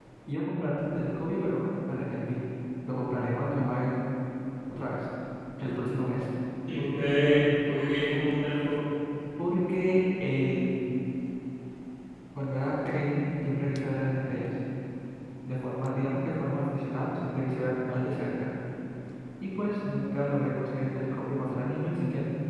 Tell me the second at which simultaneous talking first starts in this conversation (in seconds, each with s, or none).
none